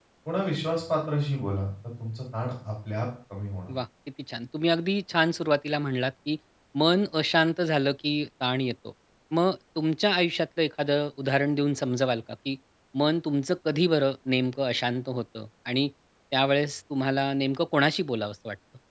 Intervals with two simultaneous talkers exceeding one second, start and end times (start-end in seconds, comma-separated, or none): none